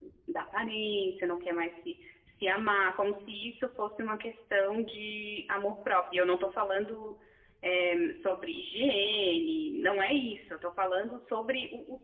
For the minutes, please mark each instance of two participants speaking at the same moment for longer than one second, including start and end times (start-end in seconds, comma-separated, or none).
none